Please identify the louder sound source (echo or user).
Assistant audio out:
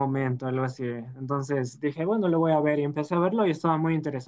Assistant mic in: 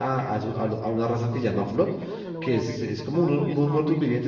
user